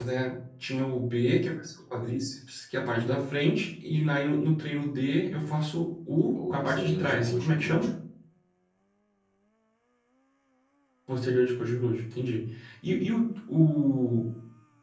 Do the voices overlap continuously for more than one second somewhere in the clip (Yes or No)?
Yes